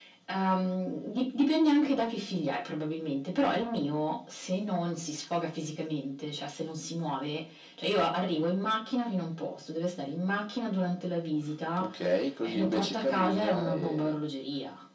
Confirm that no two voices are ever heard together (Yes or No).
No